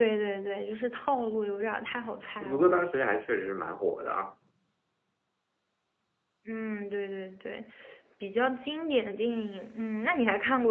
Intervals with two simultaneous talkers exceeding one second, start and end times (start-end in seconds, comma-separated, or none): none